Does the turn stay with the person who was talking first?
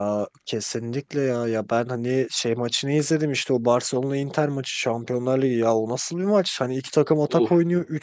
Yes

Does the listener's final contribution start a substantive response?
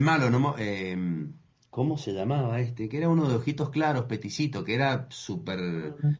Yes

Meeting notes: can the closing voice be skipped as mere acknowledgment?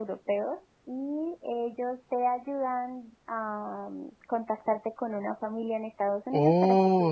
No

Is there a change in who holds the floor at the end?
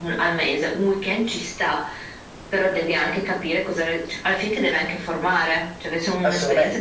Yes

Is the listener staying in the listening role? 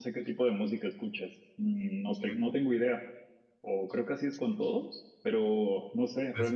Yes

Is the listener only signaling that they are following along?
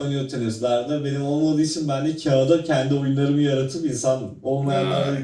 Yes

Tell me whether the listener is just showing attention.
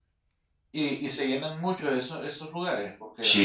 No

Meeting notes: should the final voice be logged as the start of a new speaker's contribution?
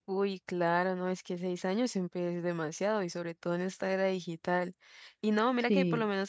No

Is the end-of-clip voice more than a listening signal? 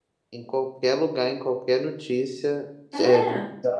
No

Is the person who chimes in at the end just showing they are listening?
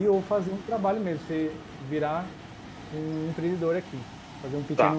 No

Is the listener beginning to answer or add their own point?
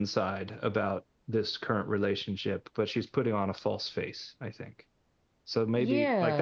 Yes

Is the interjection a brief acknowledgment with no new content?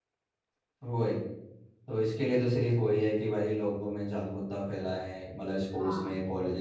Yes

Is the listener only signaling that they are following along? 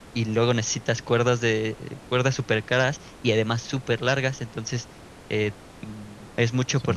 Yes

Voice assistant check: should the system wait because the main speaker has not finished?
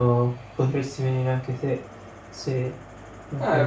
No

